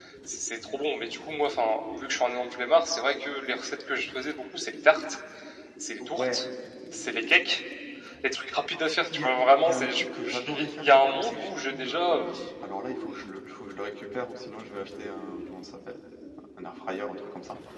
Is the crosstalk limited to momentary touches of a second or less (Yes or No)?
No